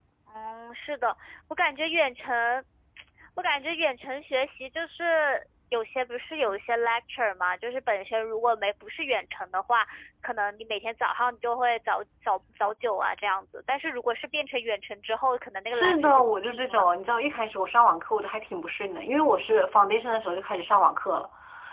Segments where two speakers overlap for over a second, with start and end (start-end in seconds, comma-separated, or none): 15.7-16.9